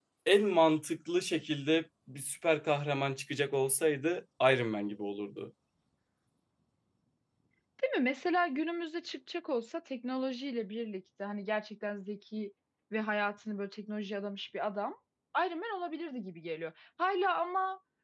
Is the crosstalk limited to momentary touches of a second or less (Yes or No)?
Yes